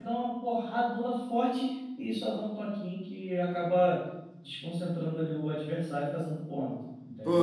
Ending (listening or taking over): taking over